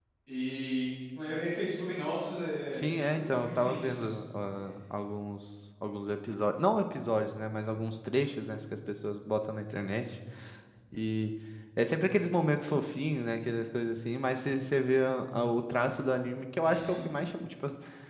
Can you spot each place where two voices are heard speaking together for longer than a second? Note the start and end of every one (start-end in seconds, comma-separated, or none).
2.7-4.1